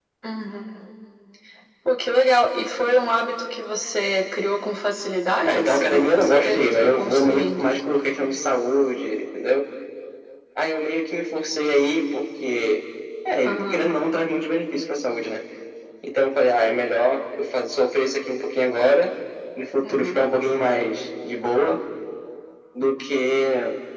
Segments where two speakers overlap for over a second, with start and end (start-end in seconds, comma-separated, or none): 5.4-7.6